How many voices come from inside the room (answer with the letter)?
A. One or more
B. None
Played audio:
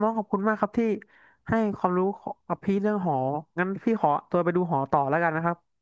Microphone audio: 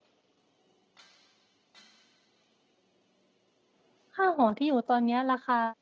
A